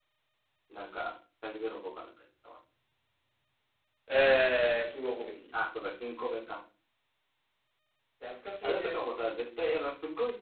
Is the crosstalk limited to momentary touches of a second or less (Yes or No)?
Yes